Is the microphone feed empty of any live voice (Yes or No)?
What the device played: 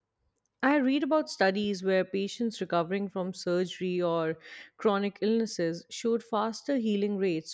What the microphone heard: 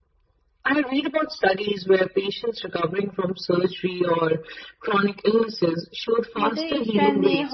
No